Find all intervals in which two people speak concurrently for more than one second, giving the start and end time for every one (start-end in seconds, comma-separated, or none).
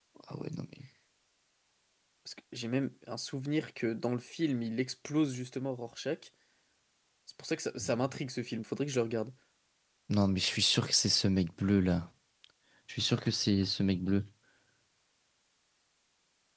none